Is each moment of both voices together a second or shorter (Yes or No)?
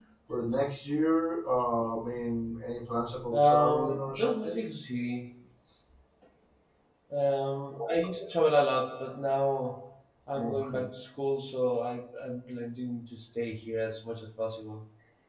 No